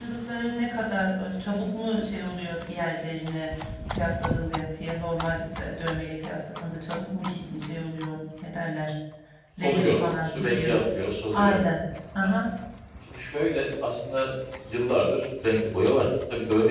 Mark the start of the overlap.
9.6 s

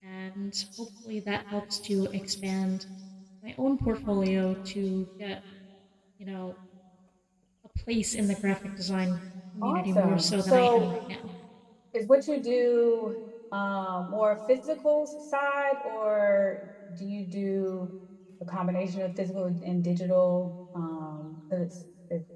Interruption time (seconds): 9.6 s

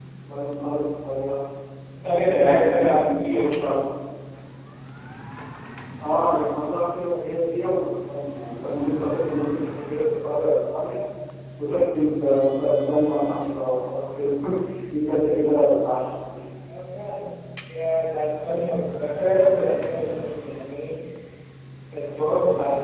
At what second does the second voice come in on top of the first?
2.2 s

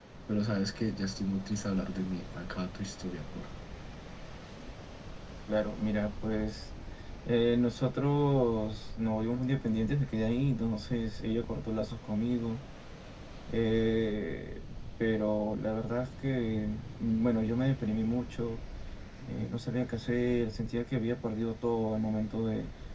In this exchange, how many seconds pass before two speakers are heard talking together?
none

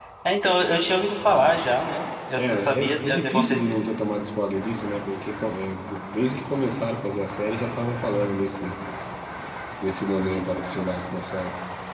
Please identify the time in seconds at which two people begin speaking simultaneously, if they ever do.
2.4 s

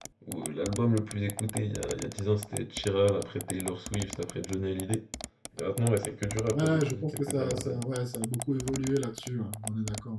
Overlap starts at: 6.5 s

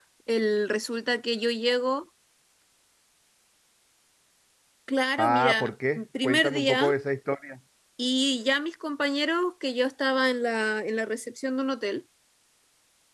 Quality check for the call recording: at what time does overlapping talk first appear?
5.2 s

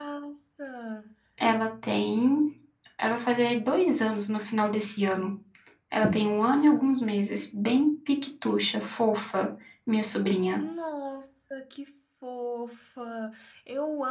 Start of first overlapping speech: none

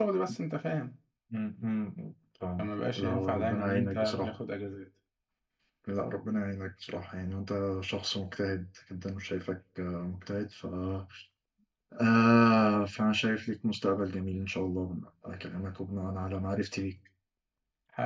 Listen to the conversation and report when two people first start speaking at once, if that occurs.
2.6 s

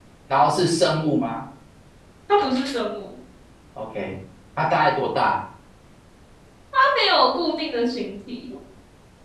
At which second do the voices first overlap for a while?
none

